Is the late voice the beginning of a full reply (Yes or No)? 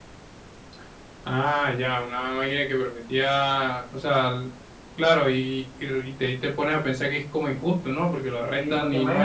Yes